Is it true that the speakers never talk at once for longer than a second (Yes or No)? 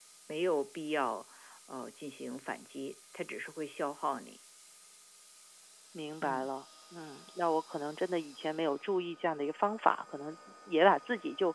Yes